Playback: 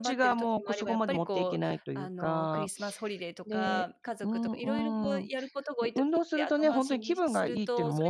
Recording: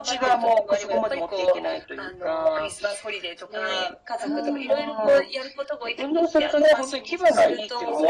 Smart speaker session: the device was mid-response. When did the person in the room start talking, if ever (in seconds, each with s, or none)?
4.2 s